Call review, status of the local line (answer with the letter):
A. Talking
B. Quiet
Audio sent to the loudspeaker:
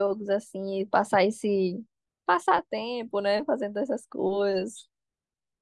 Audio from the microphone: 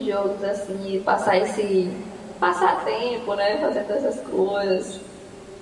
B